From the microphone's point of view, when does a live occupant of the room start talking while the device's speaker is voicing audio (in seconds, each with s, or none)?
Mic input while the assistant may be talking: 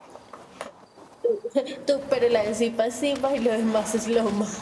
none